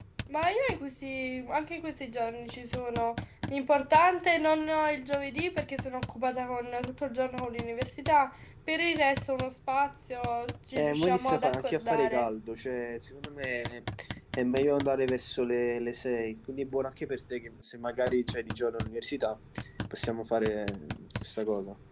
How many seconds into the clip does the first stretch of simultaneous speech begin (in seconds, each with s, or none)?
10.8 s